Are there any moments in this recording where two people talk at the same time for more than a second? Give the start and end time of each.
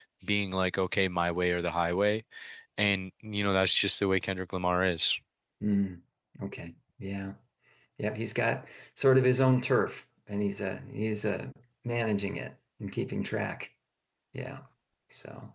none

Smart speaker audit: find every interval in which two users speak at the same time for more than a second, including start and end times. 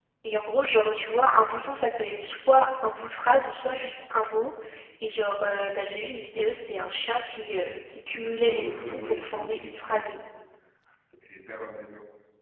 8.4-10.2

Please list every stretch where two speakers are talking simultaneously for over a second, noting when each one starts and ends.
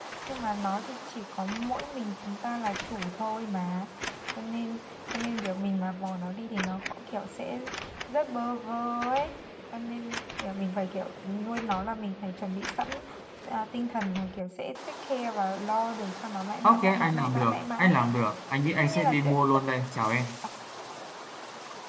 16.6-18.1

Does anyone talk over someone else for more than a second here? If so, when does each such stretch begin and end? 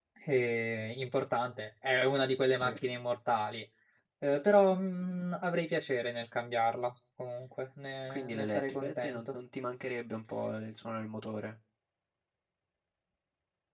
8.0-9.4

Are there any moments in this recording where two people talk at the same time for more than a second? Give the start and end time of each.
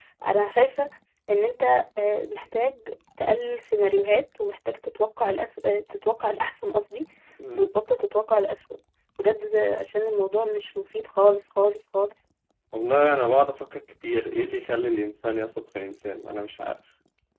none

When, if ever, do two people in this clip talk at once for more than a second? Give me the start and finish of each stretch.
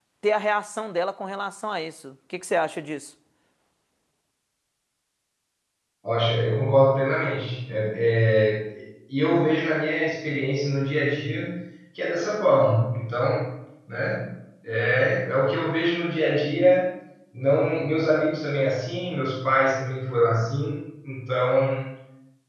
none

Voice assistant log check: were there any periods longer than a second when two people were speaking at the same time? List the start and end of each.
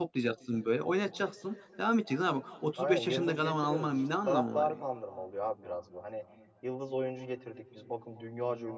2.8-4.8

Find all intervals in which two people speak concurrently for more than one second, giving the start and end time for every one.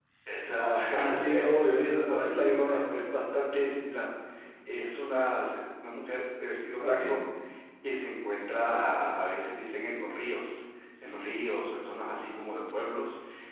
0.9-2.9

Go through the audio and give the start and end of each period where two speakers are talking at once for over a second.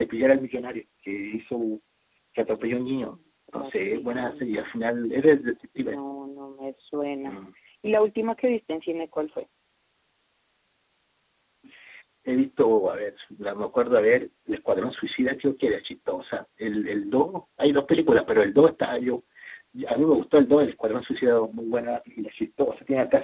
3.5-4.8

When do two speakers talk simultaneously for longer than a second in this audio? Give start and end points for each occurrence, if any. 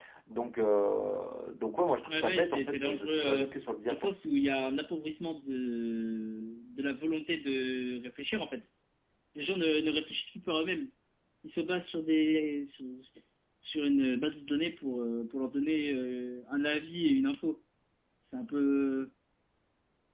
2.1-3.5

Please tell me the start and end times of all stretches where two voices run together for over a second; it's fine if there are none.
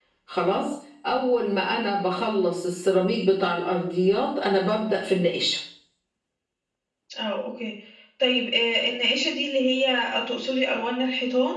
none

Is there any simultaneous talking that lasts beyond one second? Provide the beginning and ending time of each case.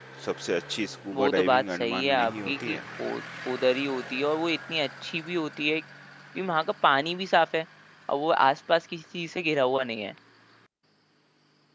1.1-2.8

